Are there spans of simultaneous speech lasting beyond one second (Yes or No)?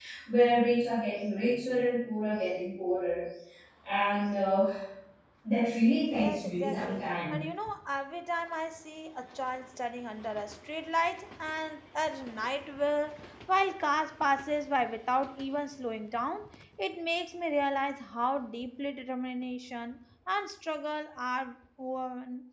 Yes